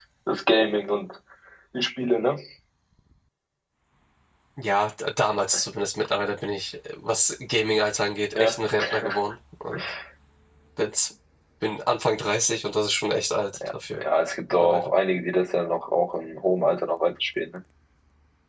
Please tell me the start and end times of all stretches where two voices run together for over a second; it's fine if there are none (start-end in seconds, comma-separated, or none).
none